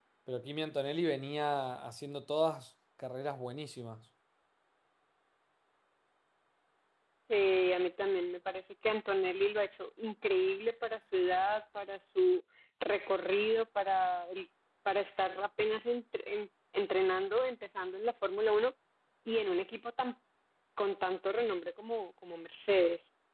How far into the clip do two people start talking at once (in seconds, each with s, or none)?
none